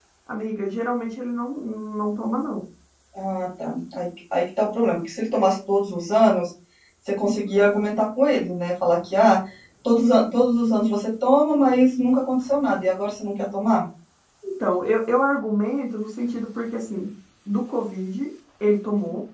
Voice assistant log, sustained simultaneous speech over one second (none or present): none